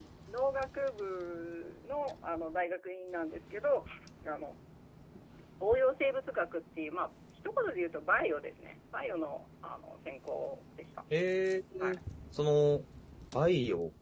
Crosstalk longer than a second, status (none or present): none